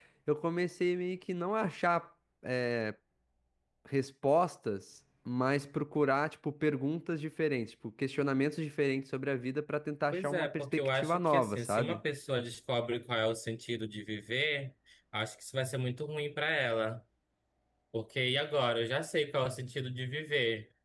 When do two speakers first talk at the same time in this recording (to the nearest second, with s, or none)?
10 s